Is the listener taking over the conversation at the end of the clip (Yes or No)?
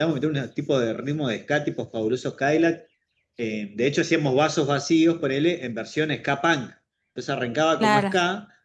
No